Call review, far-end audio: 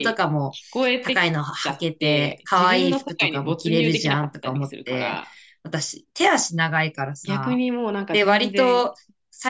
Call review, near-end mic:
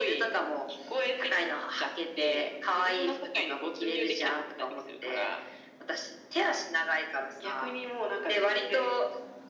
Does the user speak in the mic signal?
No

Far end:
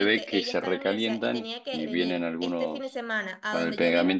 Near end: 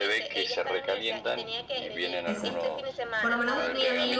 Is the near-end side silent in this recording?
No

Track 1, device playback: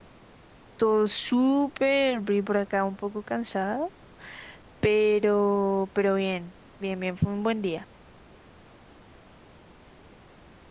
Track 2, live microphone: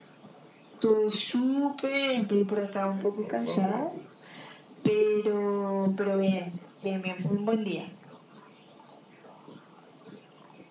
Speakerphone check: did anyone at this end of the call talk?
Yes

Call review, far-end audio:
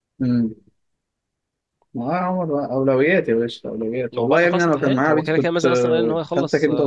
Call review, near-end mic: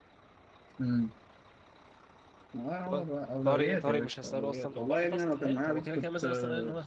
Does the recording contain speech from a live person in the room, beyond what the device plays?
Yes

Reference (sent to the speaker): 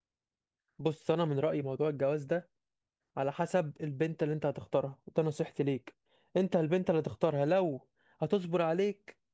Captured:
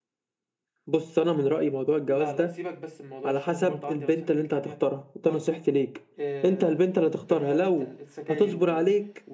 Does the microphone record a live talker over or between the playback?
Yes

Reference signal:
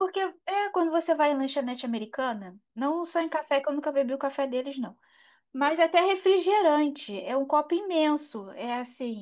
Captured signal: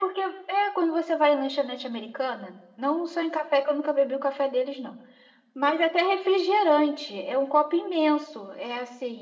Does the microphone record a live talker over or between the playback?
No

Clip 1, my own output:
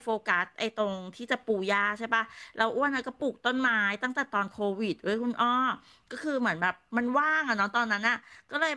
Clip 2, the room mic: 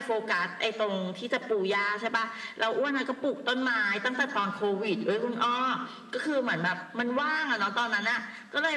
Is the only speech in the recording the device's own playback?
Yes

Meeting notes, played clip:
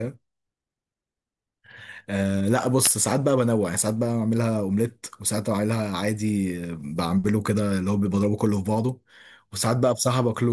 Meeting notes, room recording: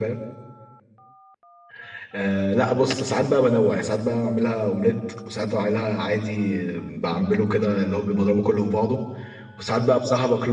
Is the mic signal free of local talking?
Yes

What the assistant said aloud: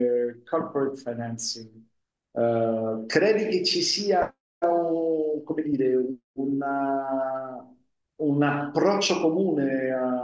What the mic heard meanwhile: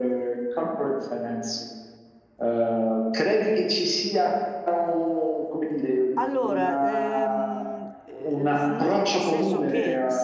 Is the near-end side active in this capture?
Yes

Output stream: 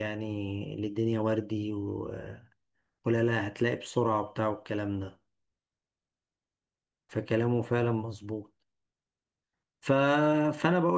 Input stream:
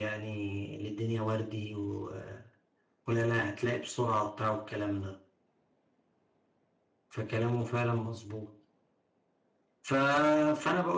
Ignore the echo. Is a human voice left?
No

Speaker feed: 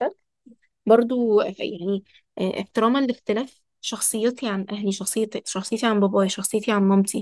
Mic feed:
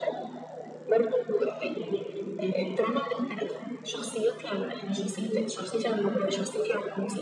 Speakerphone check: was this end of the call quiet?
Yes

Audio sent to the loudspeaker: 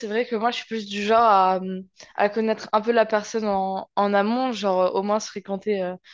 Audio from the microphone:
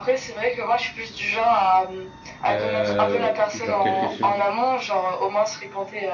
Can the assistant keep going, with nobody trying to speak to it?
No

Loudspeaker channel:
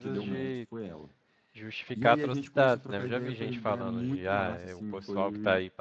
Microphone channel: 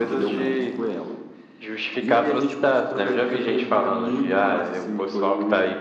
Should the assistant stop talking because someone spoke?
No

